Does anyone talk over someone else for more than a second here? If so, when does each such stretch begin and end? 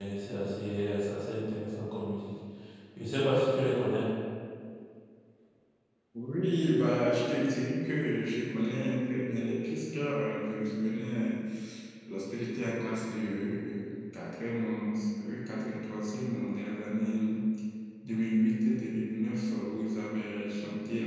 none

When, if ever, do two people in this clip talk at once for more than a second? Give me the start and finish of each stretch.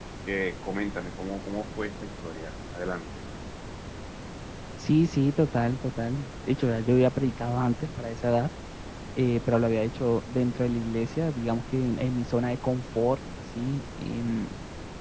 none

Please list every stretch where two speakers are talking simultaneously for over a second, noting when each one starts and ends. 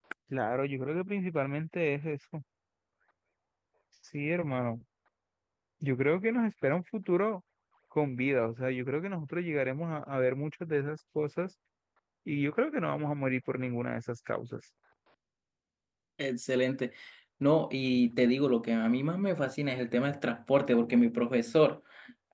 none

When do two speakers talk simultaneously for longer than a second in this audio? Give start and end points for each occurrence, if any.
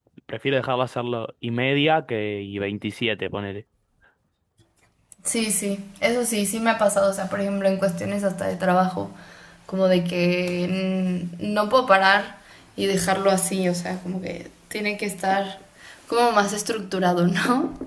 none

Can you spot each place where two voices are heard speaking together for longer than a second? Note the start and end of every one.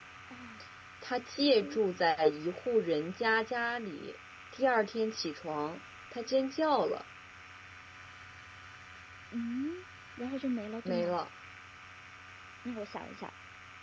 none

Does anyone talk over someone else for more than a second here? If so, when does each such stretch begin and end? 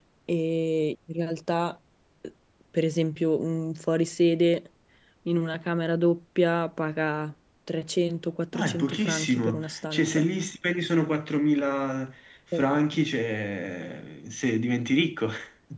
8.5-10.3

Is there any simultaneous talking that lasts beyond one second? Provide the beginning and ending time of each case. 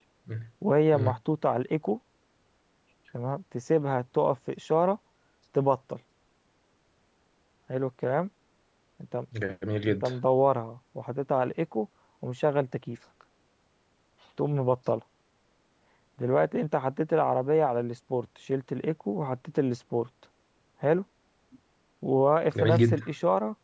none

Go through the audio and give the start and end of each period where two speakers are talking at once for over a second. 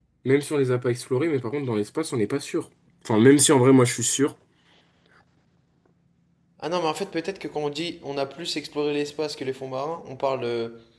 none

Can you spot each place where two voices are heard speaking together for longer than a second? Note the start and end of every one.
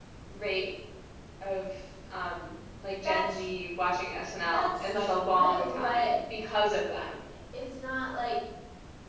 4.5-6.2

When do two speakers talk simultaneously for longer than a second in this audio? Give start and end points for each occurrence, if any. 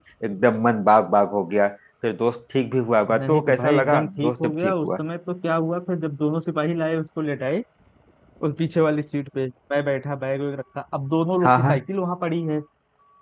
3.2-4.9

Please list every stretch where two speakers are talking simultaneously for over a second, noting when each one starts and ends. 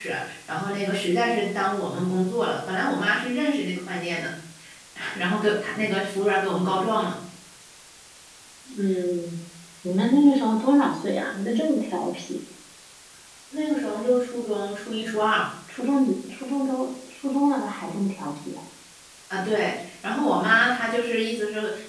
none

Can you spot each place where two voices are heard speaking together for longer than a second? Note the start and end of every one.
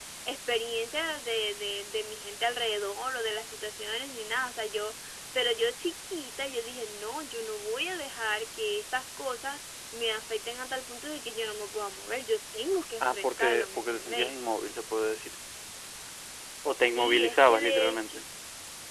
13.0-14.3, 16.8-18.2

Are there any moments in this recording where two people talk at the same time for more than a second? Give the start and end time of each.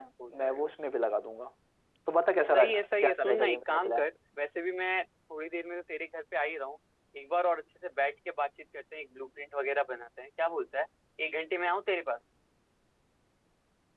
2.5-4.1

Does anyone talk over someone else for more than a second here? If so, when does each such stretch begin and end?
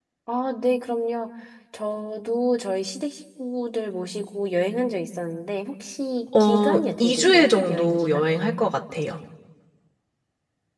6.4-8.3

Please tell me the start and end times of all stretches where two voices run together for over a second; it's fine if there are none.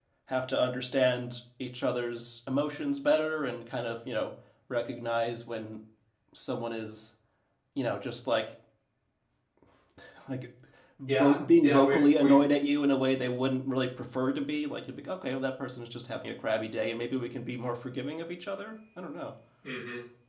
11.1-12.4

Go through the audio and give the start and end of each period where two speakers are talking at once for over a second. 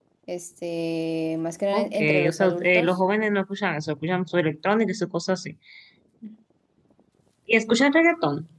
1.7-3.0

